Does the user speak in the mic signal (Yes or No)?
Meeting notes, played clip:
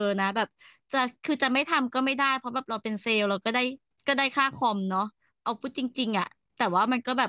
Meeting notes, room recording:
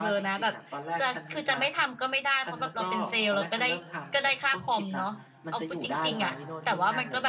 Yes